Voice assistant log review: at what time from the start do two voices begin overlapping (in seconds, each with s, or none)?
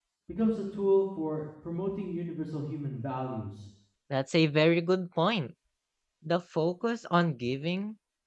none